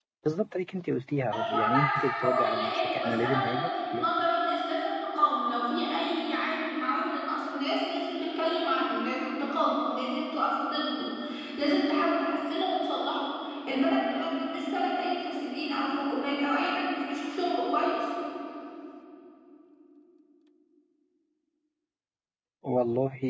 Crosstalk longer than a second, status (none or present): present